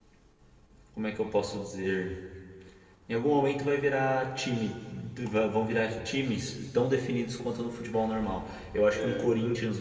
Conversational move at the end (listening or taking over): listening